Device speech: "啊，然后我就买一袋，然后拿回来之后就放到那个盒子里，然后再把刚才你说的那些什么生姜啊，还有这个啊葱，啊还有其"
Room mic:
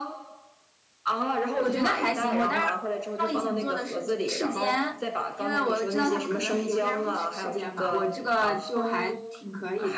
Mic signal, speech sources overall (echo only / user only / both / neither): both